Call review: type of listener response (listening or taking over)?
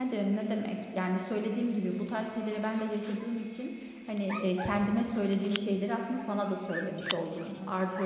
listening